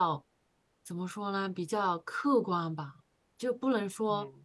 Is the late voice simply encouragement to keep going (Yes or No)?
Yes